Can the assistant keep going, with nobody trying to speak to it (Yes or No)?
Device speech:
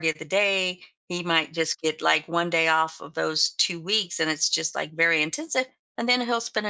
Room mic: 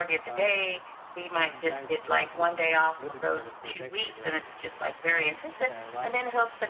No